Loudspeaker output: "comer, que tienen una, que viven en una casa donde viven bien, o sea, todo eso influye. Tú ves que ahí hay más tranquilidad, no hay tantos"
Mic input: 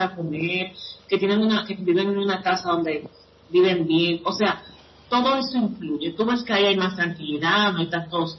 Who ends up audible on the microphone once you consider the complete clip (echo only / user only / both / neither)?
echo only